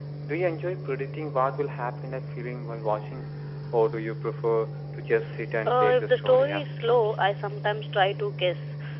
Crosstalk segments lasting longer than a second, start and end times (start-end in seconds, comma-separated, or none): 5.7-7.2